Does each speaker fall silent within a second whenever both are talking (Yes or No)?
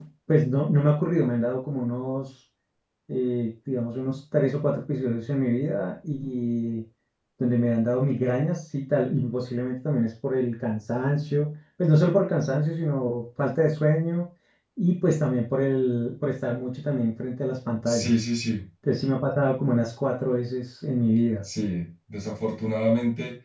Yes